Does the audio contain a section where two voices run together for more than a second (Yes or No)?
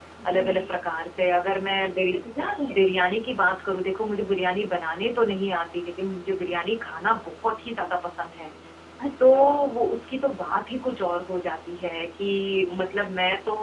No